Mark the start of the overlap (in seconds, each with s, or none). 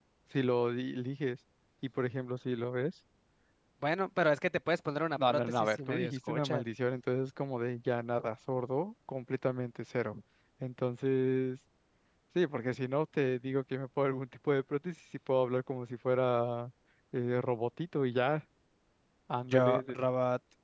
5.2 s